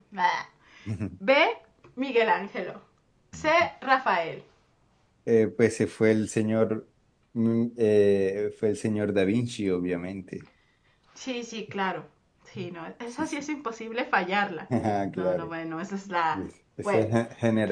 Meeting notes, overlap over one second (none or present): none